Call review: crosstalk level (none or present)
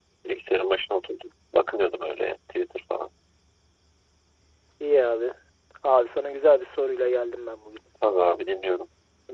none